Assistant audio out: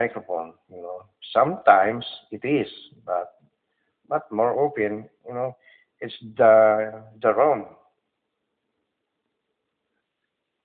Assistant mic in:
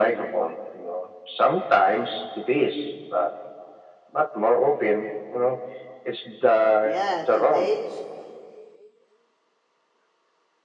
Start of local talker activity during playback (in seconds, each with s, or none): 6.8 s